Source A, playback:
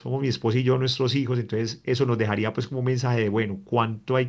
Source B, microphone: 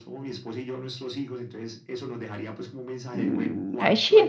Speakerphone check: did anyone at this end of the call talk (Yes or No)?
Yes